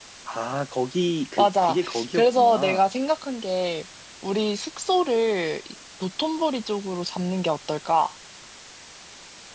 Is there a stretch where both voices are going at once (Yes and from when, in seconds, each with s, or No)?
Yes, from 1.4 s